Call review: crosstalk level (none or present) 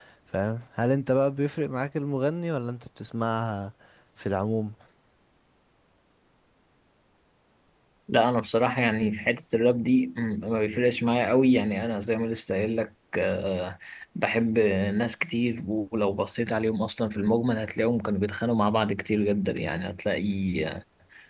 none